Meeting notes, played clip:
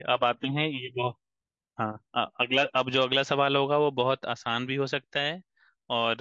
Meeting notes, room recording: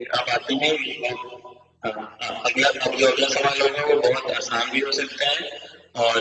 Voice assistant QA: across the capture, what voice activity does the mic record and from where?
echo only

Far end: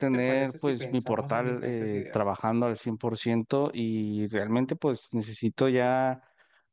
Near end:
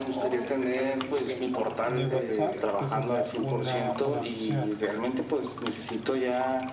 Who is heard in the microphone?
both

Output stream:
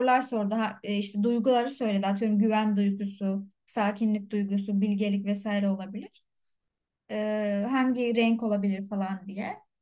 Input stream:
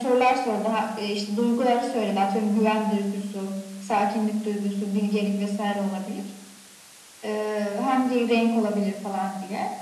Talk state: echo only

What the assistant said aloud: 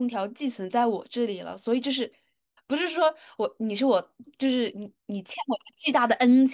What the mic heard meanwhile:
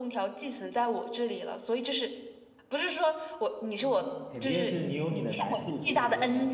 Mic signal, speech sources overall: both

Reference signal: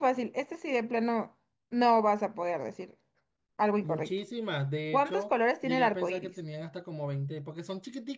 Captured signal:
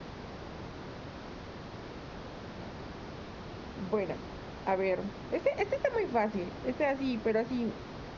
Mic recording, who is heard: user only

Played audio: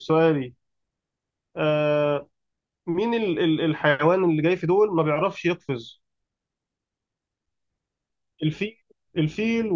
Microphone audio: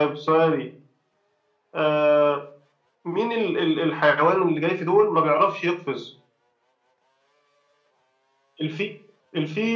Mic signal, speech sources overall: echo only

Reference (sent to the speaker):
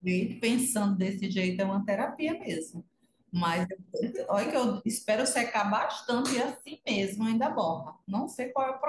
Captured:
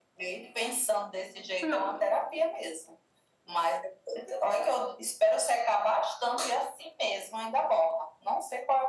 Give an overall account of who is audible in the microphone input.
both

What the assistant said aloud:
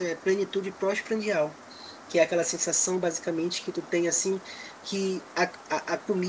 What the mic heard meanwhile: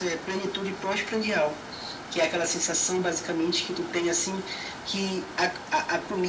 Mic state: echo only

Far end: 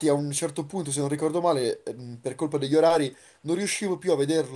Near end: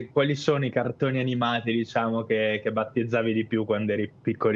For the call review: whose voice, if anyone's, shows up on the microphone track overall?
user only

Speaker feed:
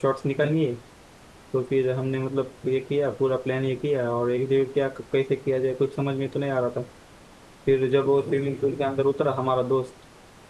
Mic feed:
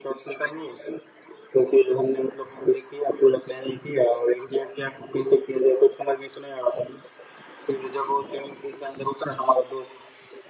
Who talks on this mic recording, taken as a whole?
echo only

